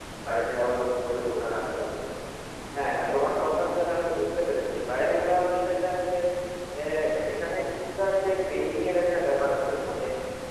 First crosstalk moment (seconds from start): none

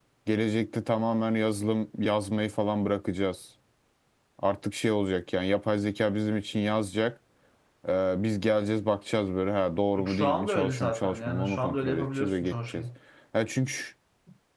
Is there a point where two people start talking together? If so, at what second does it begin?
10.0 s

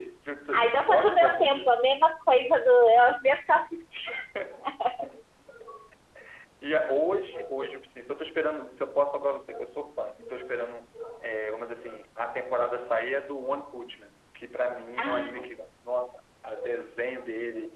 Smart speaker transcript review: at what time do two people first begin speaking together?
0.5 s

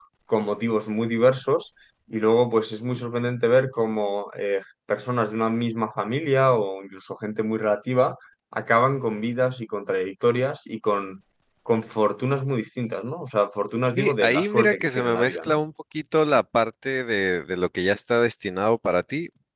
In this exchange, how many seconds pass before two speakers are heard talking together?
14.0 s

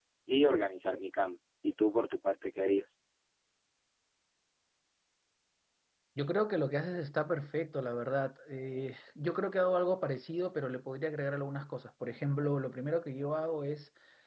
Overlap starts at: none

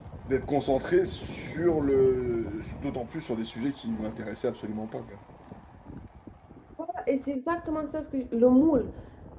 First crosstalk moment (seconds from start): none

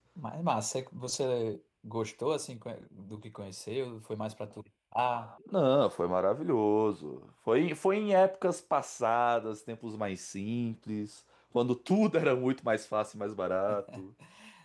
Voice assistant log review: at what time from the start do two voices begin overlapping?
none

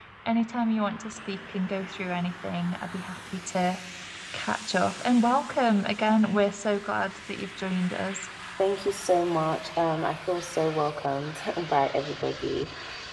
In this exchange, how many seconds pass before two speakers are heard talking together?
none

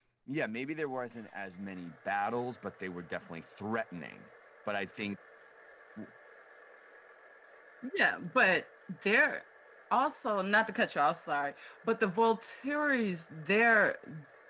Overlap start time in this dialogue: none

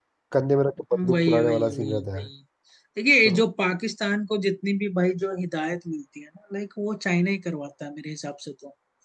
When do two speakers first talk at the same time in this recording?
1.0 s

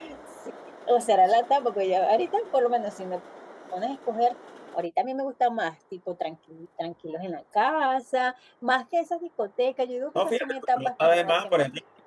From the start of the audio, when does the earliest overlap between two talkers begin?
10.2 s

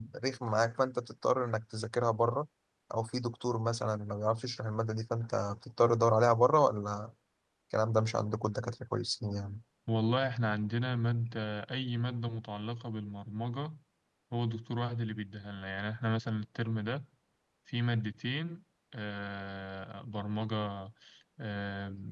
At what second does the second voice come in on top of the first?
none

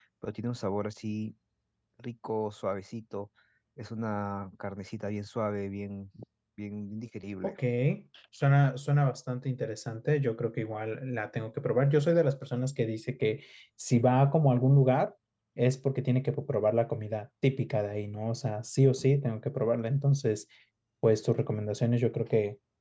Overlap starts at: none

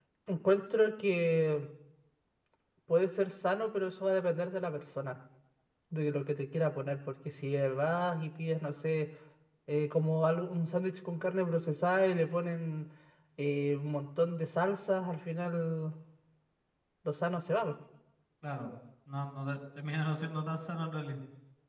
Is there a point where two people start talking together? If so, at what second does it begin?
none

